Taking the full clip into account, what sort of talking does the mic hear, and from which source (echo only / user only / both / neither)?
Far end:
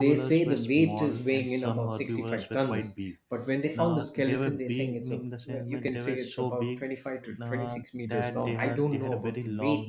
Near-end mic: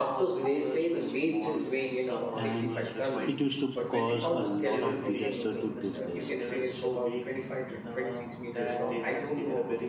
both